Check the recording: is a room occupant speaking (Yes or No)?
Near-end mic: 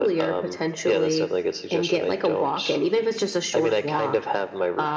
No